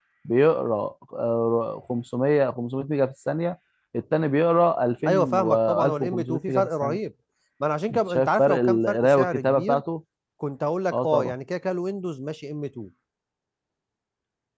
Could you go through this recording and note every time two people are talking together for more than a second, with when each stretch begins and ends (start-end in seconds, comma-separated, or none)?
5.1-7.0, 7.9-9.8